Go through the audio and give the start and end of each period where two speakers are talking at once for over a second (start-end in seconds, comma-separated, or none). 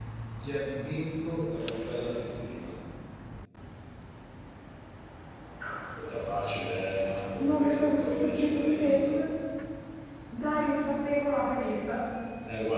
7.4-9.2